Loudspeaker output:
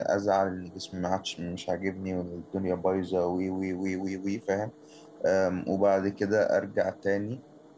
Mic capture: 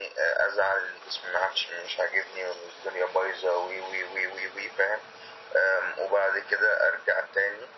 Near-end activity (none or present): none